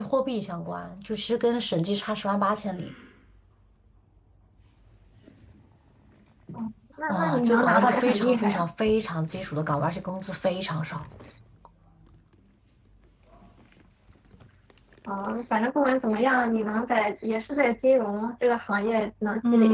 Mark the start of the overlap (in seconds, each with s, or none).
7.1 s